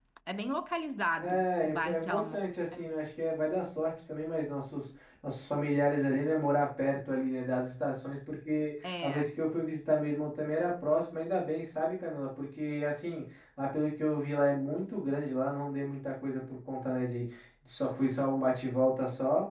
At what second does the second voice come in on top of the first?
1.2 s

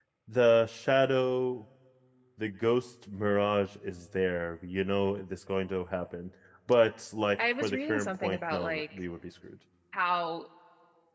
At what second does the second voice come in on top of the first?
7.4 s

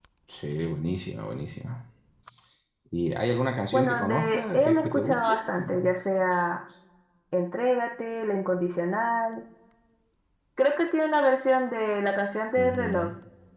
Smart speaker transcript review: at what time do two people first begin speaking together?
3.7 s

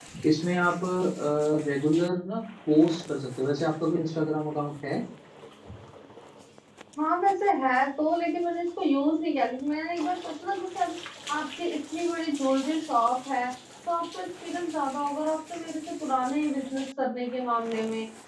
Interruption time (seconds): none

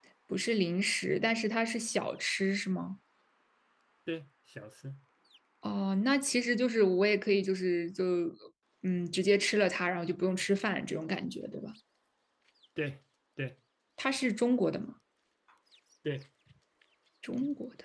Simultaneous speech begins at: none

